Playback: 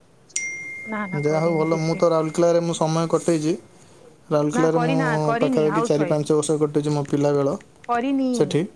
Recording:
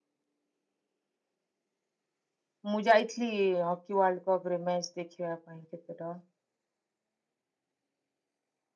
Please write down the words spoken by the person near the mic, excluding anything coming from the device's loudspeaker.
ମୁଁ ଯାଇଥିଲି ହକି ୱାଲ୍ଡ କପରେ ମ୍ୟାଚ୍ ଦେଖିବା ପାଇଁ କେତେଟ

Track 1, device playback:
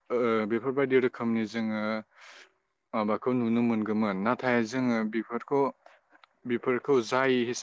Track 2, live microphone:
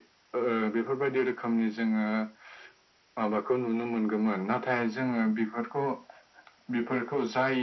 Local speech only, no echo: none

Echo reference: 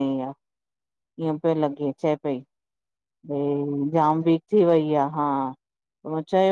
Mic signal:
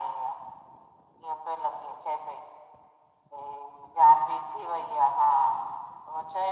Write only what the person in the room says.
none

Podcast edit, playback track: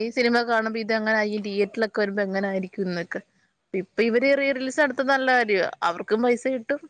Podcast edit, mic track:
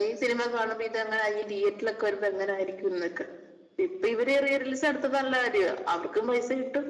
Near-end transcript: none

